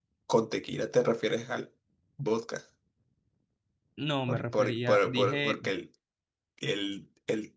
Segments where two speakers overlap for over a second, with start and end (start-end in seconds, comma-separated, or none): 4.3-5.6